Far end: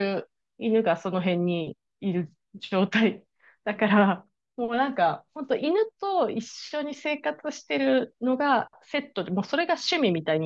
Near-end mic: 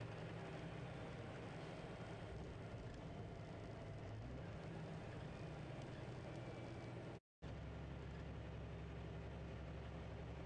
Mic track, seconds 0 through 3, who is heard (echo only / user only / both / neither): neither